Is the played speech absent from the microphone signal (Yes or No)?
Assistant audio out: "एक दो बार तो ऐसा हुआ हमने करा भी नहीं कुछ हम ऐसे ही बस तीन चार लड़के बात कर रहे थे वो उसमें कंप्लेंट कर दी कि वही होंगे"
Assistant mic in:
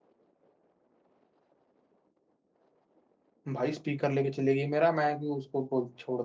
Yes